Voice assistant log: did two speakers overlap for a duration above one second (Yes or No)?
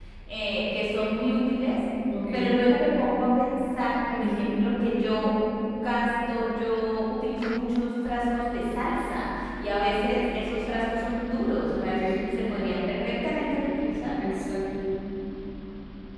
No